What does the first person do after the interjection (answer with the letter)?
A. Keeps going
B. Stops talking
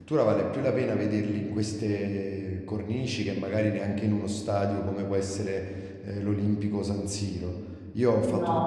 A